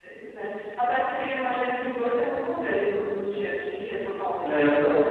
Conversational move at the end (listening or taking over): taking over